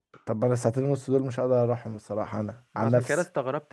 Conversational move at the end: taking over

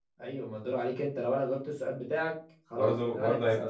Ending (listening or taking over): taking over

